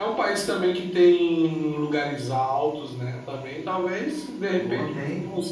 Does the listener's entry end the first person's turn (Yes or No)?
No